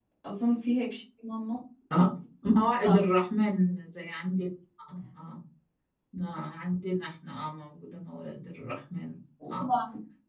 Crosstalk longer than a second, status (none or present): none